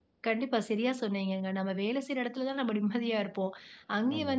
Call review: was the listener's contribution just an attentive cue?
Yes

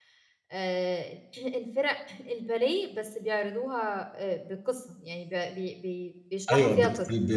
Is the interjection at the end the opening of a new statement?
Yes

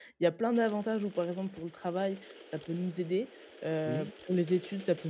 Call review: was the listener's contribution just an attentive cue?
Yes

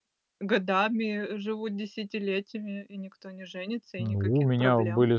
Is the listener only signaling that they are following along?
No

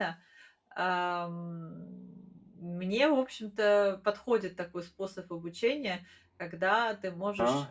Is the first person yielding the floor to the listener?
No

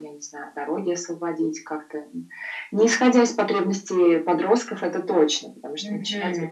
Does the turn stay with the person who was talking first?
No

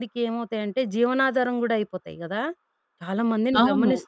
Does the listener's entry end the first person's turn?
No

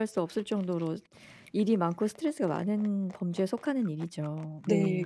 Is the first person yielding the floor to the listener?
Yes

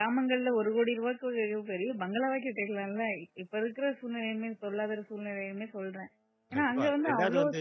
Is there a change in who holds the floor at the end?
Yes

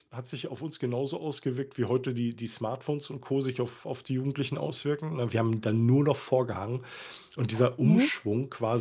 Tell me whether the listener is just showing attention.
Yes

